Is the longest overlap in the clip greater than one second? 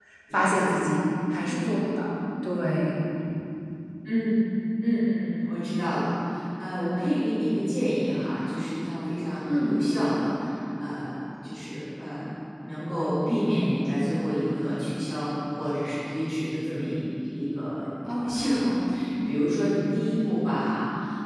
No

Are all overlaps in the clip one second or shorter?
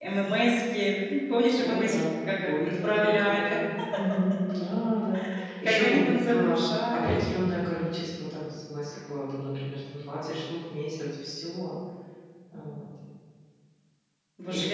No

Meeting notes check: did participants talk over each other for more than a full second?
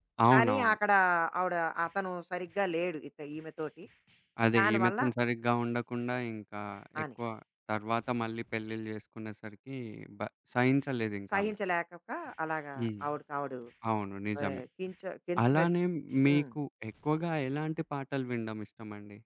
No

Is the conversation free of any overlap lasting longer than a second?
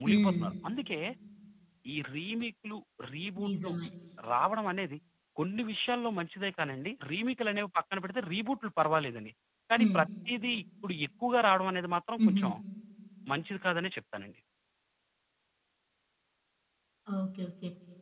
Yes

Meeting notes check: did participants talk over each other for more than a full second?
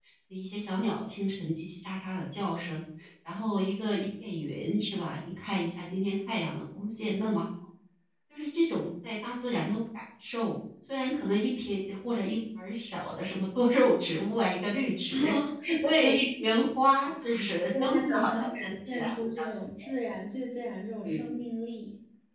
Yes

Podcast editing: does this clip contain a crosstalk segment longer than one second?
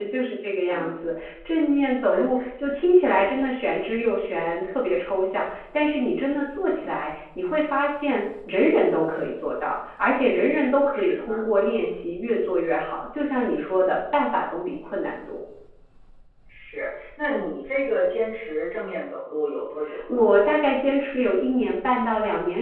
No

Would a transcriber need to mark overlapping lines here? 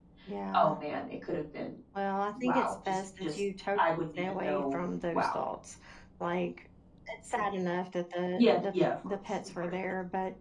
Yes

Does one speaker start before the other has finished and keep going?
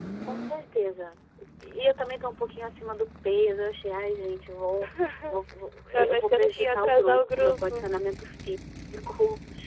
Yes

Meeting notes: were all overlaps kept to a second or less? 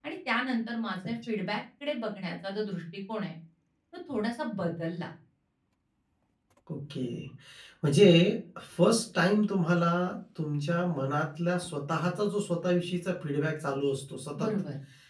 Yes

